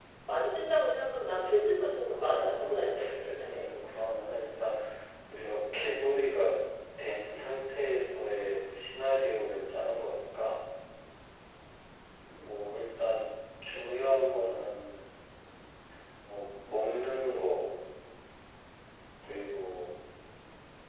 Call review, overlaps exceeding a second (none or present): present